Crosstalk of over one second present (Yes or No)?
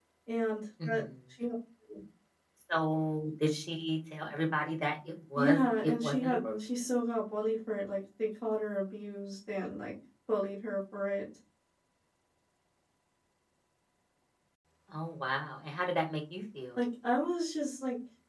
Yes